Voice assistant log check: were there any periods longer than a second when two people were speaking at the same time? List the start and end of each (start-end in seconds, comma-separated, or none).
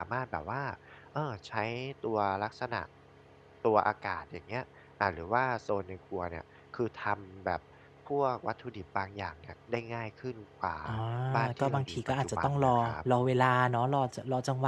11.4-13.0